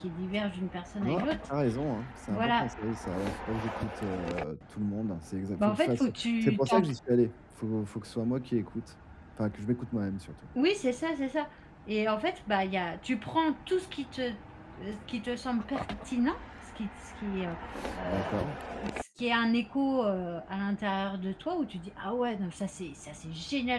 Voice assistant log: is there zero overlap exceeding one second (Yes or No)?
No